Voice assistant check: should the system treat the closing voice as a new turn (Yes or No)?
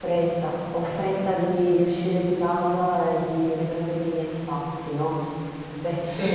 No